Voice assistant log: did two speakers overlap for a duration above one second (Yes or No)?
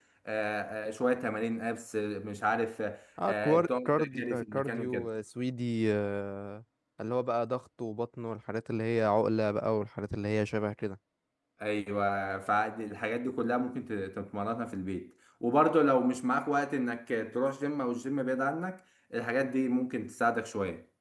Yes